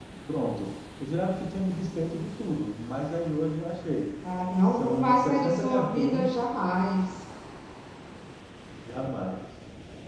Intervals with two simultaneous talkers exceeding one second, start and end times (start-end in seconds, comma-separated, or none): 4.7-6.3